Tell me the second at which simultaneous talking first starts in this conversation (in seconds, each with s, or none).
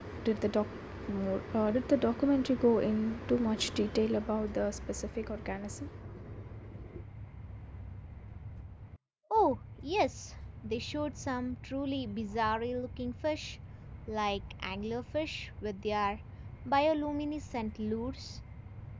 none